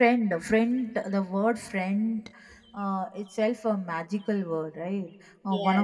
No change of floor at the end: Yes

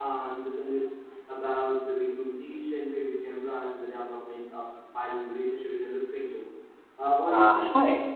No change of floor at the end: No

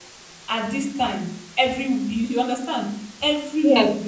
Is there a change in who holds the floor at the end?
No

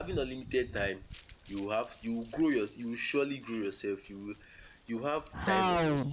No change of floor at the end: No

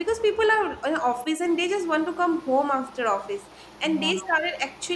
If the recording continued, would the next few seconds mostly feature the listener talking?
No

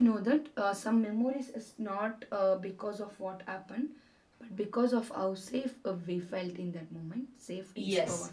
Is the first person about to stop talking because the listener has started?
Yes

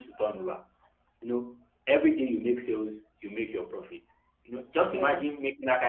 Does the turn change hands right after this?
No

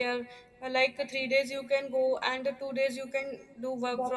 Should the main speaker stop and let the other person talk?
Yes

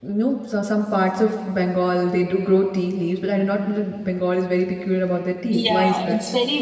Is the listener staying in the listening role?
No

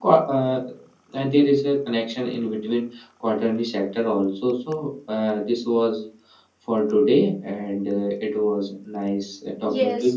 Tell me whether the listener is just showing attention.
No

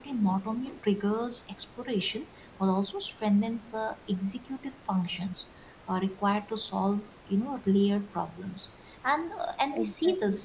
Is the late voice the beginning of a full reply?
No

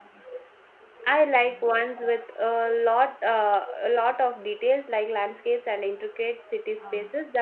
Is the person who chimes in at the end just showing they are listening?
Yes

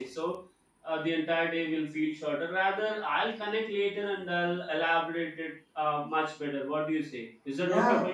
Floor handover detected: Yes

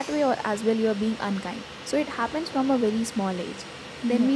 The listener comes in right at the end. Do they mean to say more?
No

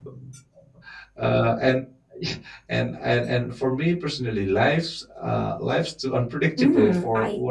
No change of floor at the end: No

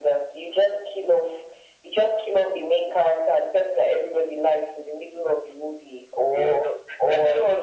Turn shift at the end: Yes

